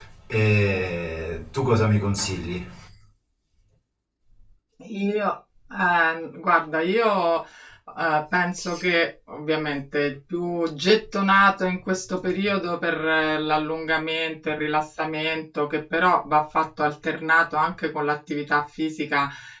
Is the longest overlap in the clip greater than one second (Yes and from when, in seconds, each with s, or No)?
No